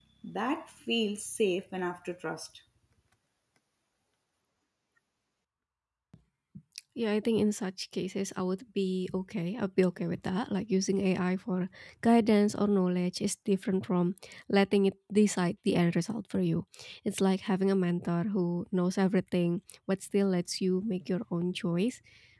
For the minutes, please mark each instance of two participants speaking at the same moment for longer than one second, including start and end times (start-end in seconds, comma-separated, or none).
none